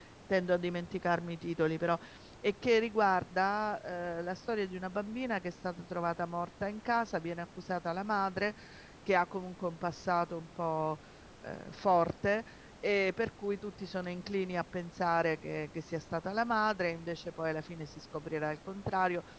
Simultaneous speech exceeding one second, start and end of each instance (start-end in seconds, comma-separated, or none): none